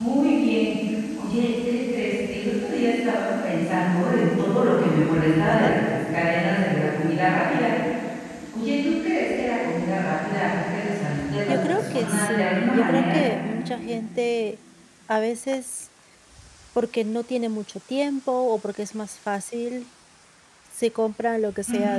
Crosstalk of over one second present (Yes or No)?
Yes